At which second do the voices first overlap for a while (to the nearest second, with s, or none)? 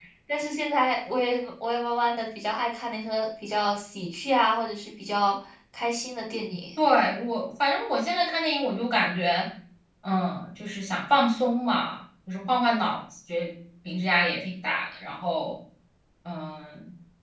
none